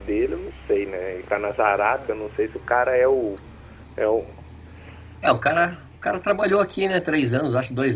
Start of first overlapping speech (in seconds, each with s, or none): none